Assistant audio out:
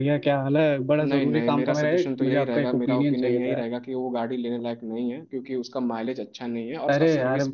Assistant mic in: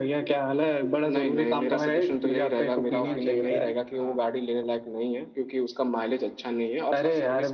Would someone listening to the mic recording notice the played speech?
Yes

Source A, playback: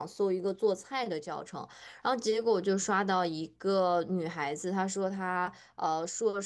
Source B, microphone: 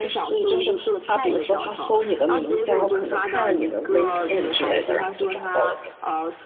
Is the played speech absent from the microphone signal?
No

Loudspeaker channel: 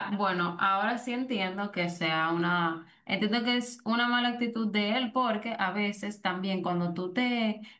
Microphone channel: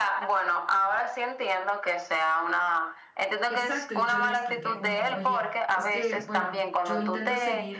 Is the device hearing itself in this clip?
Yes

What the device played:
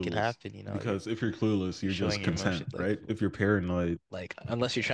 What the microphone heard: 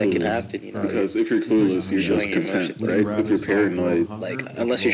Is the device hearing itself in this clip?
Yes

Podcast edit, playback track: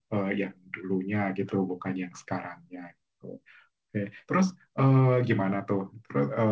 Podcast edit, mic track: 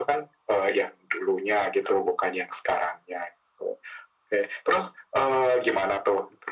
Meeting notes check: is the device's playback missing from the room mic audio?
No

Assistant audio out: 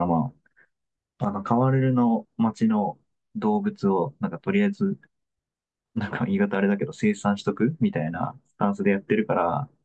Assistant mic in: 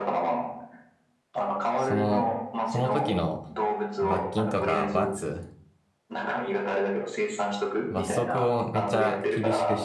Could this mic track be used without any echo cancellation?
No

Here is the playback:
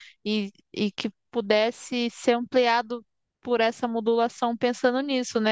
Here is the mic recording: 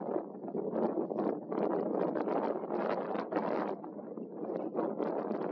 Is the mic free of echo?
Yes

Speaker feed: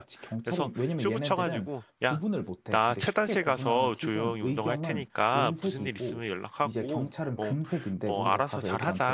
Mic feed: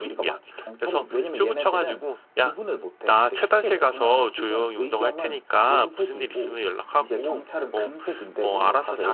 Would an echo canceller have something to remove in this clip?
Yes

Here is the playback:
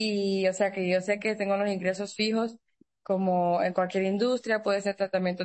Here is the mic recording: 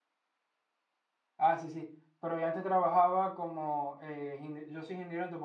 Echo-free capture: Yes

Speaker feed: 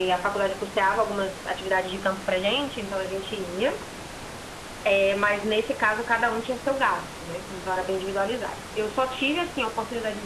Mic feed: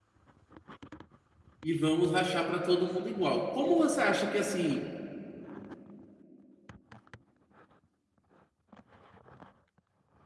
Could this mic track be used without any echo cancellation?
Yes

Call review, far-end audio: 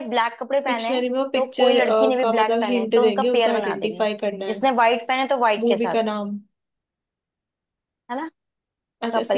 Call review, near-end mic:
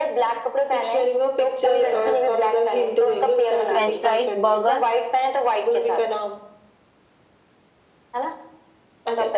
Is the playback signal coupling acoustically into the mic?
Yes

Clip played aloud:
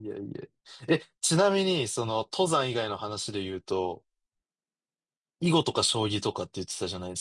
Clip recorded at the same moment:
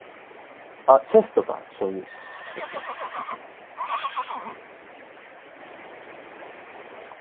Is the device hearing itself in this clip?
No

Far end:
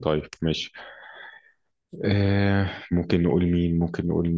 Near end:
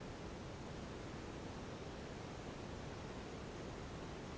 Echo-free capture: Yes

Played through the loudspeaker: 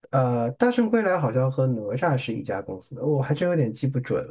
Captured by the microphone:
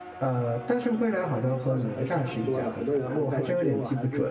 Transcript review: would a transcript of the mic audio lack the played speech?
No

